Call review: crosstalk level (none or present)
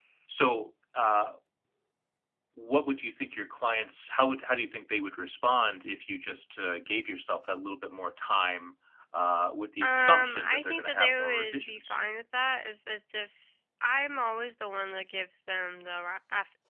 present